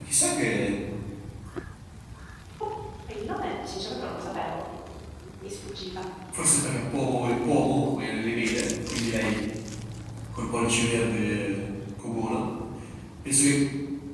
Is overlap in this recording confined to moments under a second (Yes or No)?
Yes